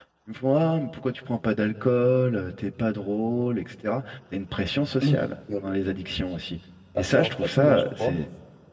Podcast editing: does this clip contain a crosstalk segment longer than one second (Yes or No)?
Yes